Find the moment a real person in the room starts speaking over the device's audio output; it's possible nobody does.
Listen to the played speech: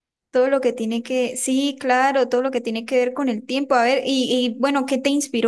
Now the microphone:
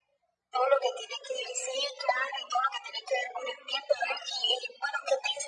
none

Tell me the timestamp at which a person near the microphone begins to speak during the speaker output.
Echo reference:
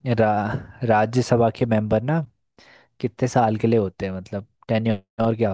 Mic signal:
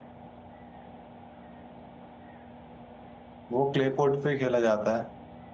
3.6 s

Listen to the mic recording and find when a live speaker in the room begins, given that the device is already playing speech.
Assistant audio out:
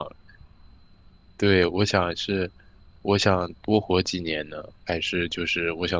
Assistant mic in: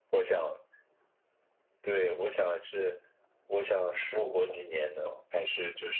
3.9 s

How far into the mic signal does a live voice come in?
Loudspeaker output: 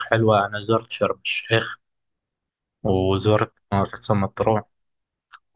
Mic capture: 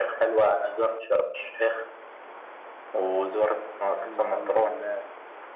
4.0 s

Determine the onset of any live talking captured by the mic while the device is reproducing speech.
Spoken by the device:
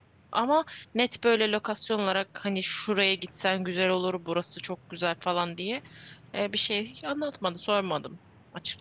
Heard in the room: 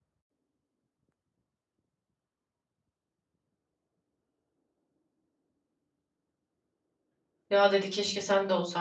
7.5 s

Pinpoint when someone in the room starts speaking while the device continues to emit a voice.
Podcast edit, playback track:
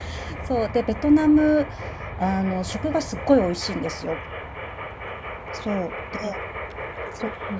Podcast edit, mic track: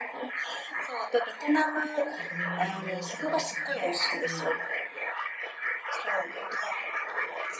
2.1 s

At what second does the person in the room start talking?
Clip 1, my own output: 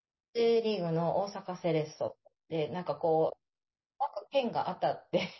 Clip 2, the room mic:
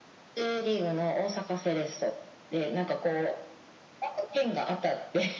none

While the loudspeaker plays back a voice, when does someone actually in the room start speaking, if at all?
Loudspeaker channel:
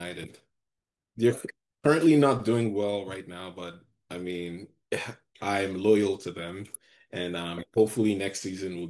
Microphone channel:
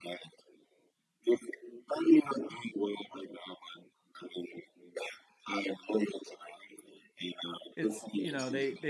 7.7 s

